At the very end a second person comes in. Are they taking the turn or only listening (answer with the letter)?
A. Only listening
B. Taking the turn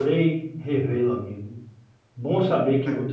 A